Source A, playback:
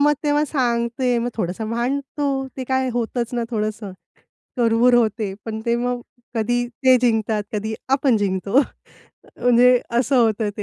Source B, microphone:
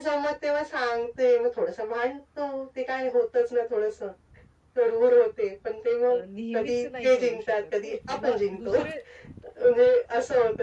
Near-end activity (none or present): present